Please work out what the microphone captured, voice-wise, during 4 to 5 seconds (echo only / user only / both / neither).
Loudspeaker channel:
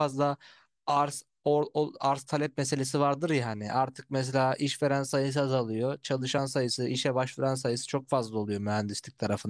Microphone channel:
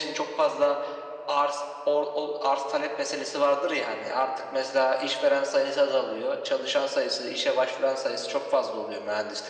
echo only